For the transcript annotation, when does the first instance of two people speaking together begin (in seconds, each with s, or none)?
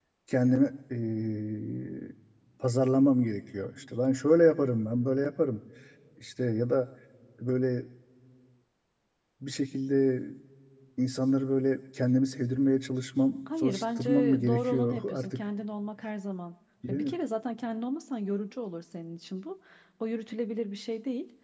13.5 s